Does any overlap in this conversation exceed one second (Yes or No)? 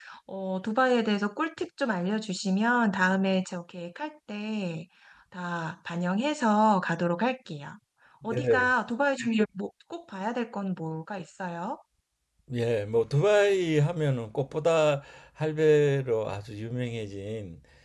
No